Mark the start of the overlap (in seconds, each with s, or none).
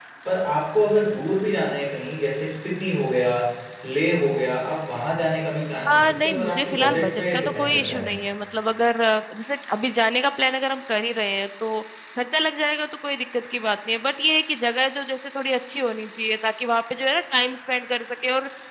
5.9 s